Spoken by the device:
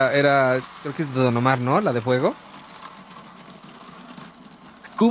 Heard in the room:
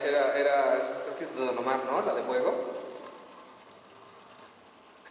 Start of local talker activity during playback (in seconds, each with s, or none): none